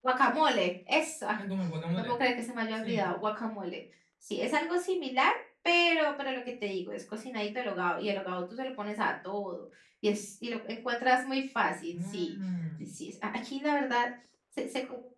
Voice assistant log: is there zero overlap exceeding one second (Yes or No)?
Yes